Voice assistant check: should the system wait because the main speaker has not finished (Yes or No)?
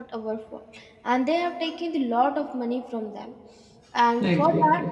Yes